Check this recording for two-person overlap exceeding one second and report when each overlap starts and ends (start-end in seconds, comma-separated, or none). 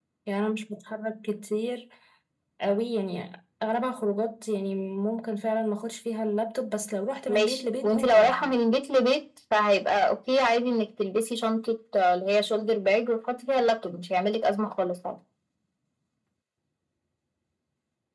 7.3-8.5